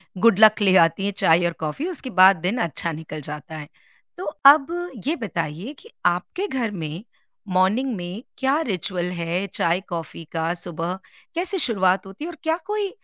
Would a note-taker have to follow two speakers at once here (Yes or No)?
No